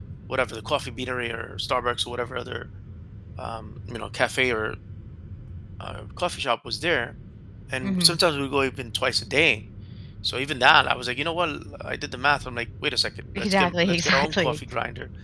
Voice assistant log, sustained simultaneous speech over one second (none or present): present